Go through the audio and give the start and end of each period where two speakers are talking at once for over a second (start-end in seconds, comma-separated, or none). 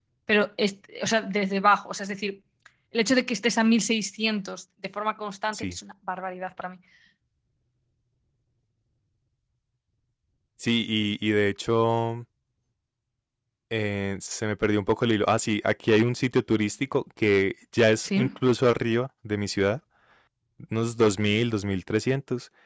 none